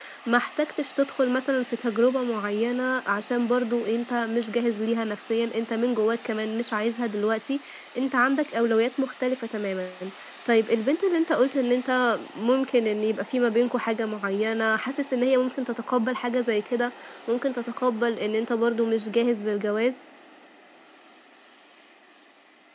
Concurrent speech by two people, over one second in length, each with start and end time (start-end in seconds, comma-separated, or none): none